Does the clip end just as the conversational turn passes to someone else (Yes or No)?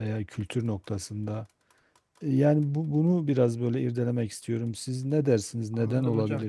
Yes